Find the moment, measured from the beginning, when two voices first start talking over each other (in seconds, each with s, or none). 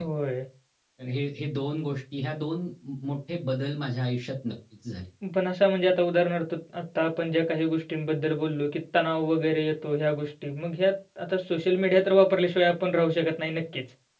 none